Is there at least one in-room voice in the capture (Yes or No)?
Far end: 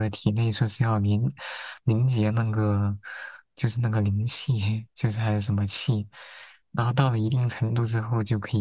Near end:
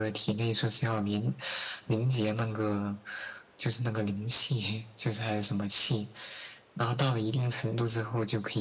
No